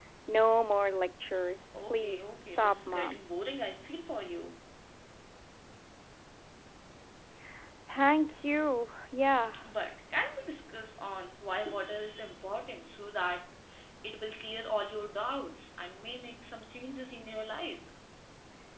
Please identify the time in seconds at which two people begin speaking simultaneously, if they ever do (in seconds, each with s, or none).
1.7 s